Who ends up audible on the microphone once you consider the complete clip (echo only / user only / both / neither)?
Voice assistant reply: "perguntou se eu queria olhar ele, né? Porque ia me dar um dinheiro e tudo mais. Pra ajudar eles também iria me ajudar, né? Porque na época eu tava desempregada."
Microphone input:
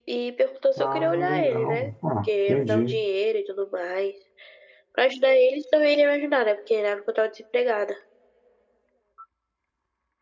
both